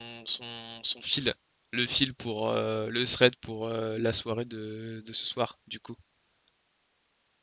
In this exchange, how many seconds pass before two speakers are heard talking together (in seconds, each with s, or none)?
none